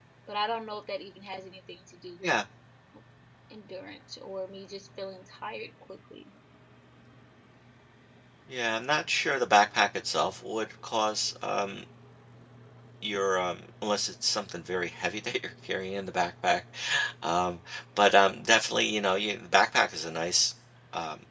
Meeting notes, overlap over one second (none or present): none